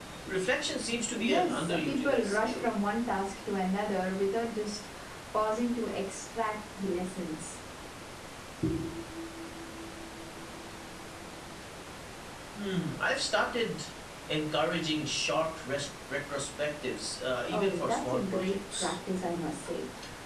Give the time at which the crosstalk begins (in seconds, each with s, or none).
1.2 s